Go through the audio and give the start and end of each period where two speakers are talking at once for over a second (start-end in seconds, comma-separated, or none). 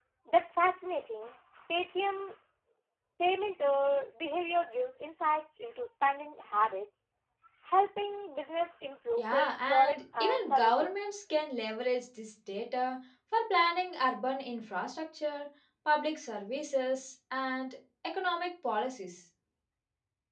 9.2-11.1